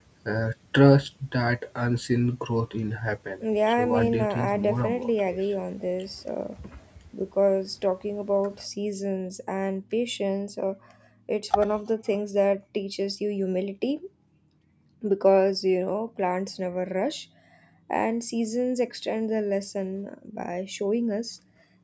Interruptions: present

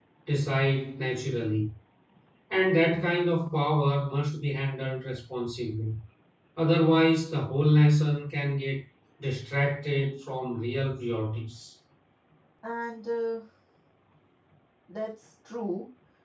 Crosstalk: none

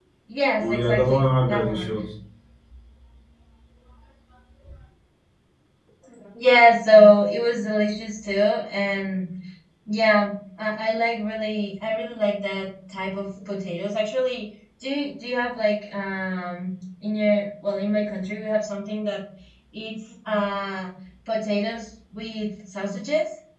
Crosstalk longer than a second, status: present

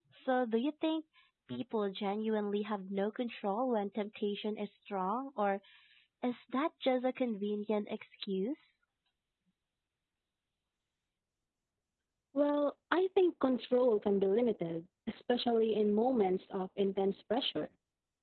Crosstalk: none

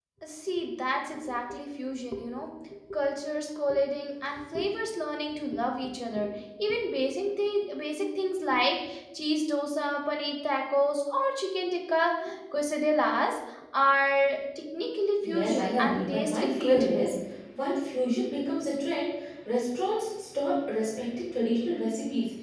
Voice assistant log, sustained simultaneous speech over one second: present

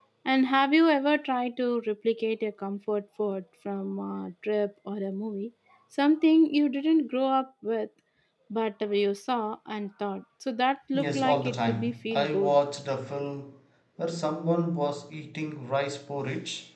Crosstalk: present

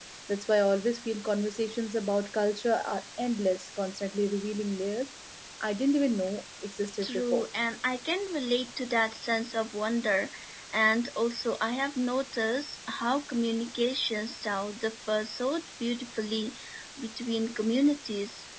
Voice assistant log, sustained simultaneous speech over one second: none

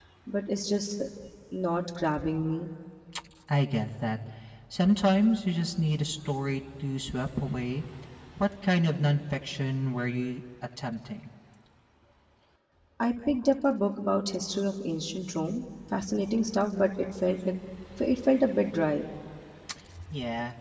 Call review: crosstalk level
none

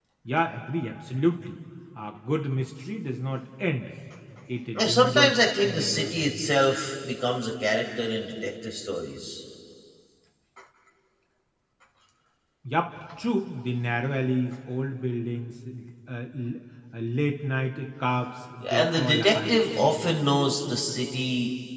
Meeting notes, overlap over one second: present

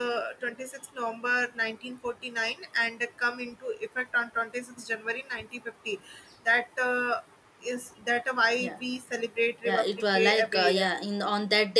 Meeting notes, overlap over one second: present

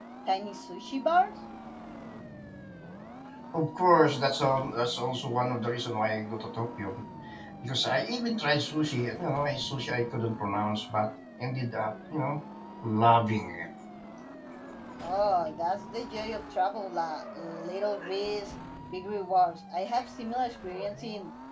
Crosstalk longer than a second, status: none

